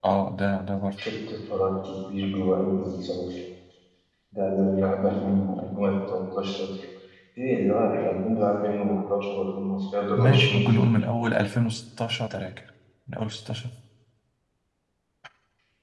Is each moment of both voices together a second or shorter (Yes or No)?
Yes